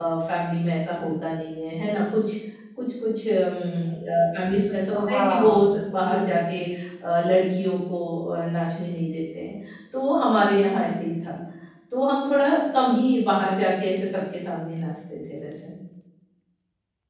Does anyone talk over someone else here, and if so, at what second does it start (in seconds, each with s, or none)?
4.9 s